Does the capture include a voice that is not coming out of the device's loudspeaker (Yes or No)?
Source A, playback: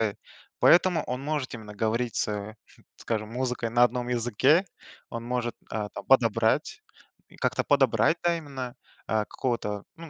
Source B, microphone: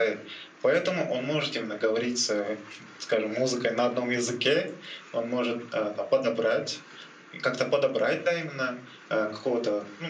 No